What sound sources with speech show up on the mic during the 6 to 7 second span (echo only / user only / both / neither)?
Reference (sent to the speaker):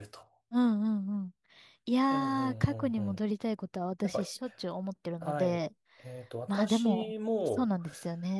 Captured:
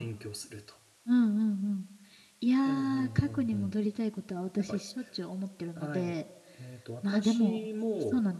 echo only